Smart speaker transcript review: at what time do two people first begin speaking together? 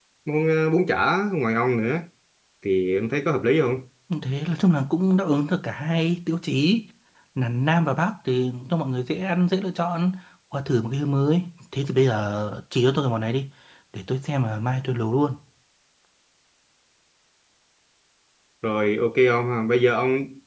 none

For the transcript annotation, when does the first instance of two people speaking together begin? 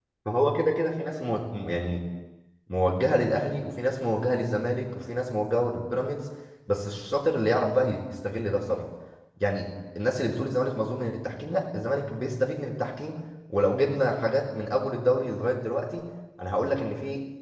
none

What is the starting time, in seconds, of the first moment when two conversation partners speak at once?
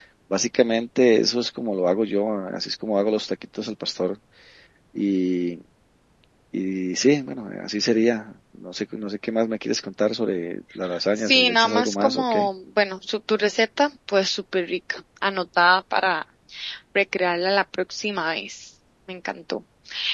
11.2 s

